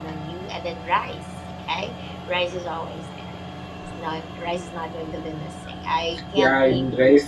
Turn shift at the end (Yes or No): Yes